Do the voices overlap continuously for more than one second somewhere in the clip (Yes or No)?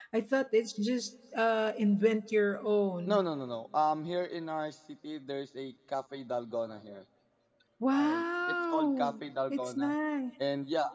Yes